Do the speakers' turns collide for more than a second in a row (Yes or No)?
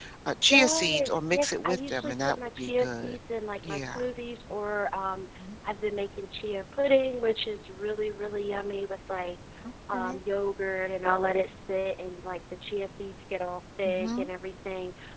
Yes